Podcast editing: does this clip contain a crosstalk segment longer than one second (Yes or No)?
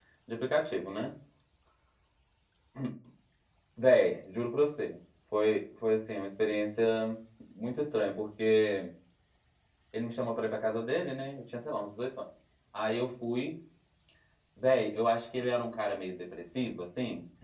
No